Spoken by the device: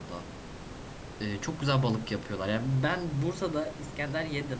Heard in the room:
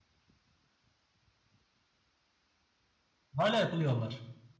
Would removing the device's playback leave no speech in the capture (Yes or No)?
No